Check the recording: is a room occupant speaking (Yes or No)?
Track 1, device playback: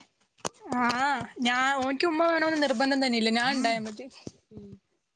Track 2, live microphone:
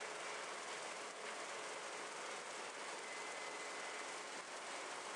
No